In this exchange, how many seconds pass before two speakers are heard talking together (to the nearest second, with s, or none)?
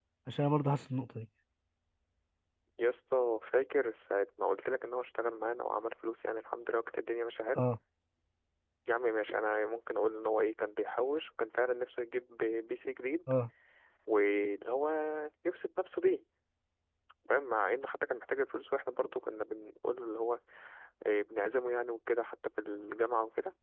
none